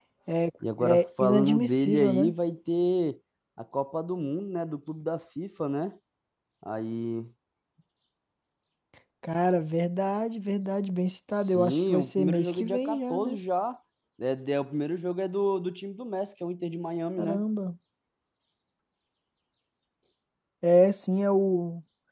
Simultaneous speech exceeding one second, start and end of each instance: 0.8-2.3, 11.4-13.4

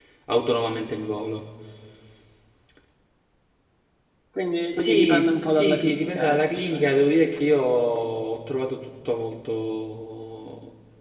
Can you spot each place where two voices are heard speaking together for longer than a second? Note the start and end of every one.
4.7-6.9

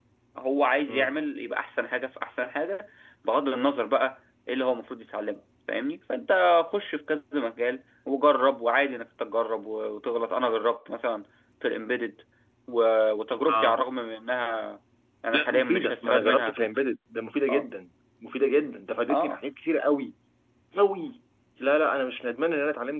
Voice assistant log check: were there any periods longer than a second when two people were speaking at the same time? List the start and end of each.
15.3-16.6

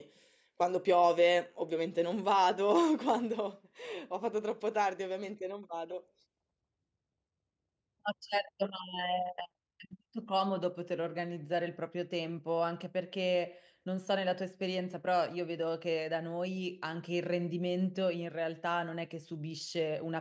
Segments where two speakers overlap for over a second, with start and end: none

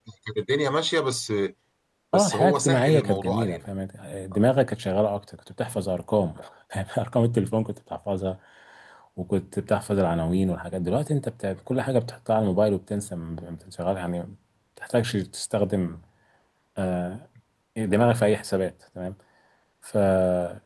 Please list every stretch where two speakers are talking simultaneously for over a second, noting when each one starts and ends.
2.1-3.7

